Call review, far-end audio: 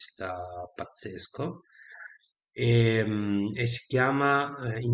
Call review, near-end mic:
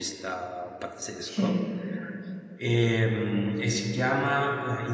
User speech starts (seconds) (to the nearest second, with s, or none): 1 s